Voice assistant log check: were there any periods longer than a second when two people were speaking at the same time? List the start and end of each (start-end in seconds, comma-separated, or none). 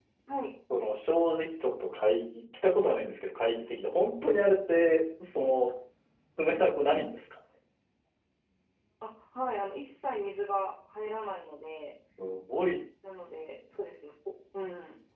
none